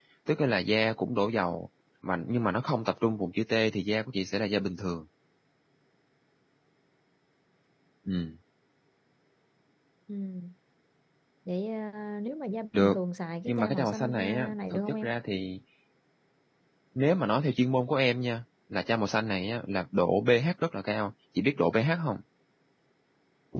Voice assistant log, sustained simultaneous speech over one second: present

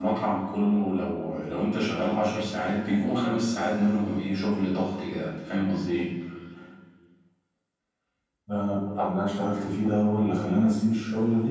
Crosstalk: none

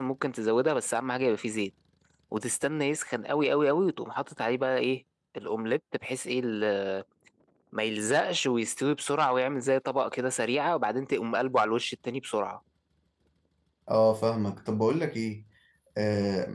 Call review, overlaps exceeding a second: none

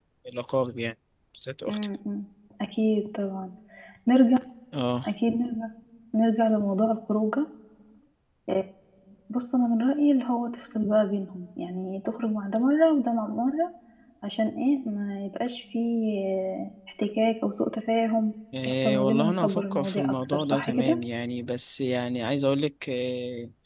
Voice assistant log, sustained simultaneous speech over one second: present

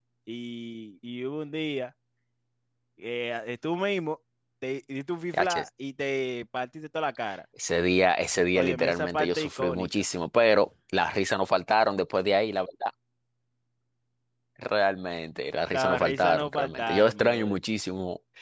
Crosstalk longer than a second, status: present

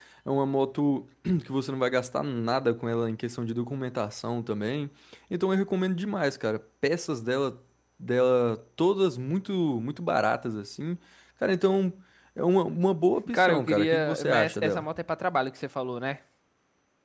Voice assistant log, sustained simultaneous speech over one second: present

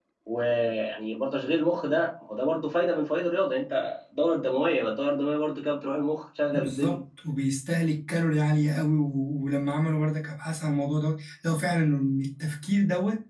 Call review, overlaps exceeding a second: none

